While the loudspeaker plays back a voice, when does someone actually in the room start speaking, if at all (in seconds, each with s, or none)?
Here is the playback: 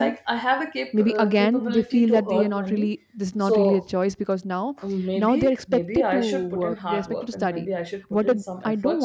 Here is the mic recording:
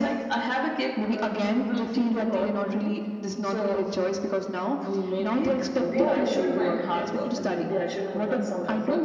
5.8 s